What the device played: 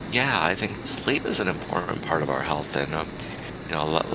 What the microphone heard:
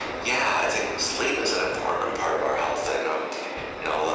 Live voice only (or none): none